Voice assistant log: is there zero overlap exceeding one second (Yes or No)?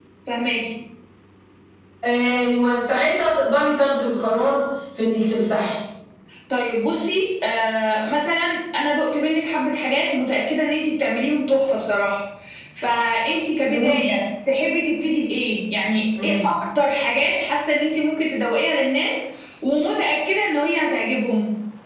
Yes